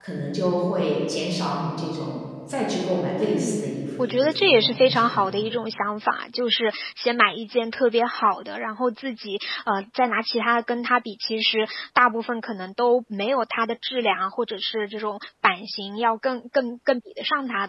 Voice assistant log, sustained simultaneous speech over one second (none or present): present